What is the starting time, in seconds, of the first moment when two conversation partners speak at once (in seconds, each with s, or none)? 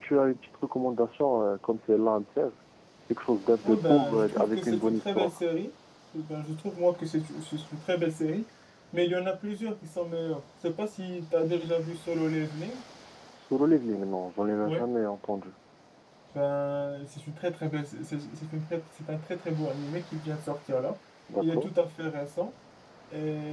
3.6 s